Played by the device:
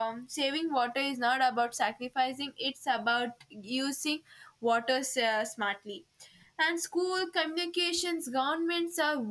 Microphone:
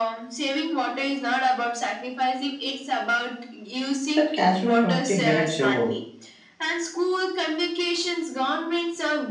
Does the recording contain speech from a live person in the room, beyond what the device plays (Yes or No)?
Yes